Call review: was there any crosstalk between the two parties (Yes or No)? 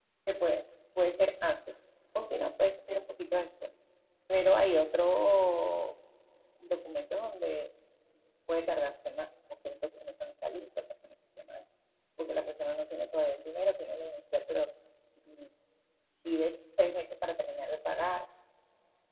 No